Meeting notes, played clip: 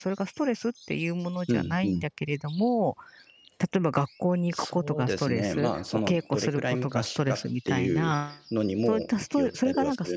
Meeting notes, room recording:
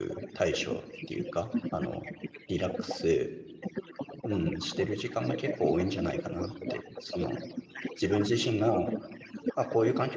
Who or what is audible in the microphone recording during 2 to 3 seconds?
both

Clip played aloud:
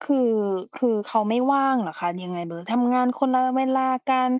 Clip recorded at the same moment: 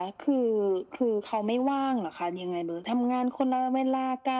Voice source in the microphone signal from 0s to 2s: echo only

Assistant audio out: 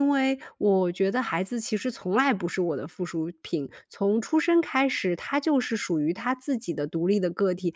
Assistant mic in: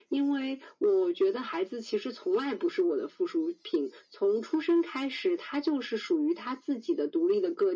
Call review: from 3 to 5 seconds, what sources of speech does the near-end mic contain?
echo only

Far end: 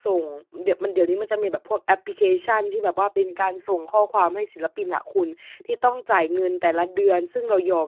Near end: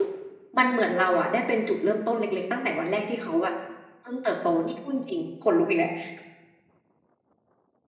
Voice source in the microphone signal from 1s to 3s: user only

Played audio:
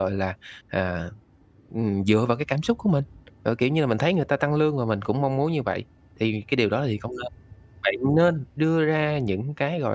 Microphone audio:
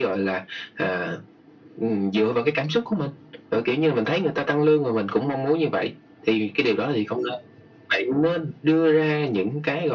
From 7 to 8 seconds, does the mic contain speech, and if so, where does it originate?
echo only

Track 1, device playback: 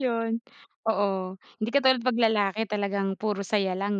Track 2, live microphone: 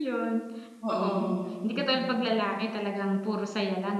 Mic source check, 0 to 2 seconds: both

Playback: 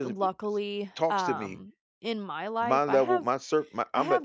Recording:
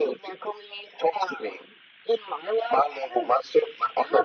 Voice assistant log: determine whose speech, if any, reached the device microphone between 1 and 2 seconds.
echo only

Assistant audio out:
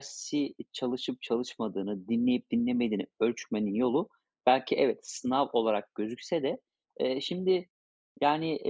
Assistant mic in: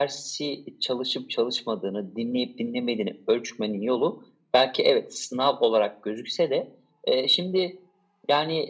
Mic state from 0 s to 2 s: echo only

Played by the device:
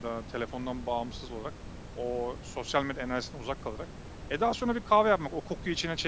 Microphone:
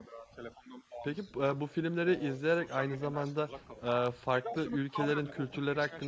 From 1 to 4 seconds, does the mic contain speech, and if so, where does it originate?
both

